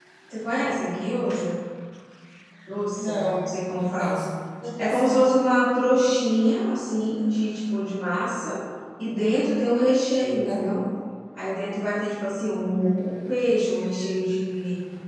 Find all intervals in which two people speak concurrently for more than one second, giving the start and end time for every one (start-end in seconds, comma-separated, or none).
2.9-4.2